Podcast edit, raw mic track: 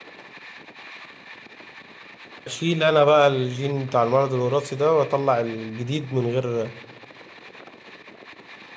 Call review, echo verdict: none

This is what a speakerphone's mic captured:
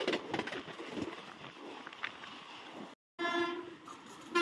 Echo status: none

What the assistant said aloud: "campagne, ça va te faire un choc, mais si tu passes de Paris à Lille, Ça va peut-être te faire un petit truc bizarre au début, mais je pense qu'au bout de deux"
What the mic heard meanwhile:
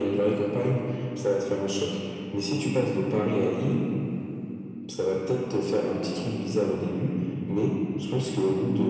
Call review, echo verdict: present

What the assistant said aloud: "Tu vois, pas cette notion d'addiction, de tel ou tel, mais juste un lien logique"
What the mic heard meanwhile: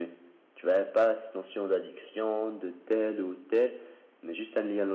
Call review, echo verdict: present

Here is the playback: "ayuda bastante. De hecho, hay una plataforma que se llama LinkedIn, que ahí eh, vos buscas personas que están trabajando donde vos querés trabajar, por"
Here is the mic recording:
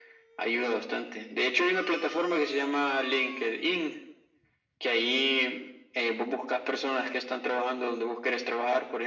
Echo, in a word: present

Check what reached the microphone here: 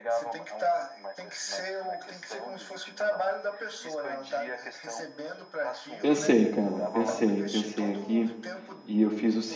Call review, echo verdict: present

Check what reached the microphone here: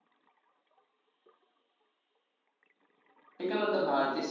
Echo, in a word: none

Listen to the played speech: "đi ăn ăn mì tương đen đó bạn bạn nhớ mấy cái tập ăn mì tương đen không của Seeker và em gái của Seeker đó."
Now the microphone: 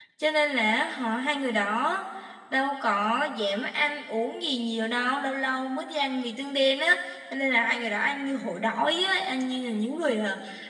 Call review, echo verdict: none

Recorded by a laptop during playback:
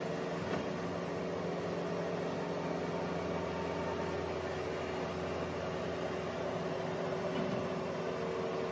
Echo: none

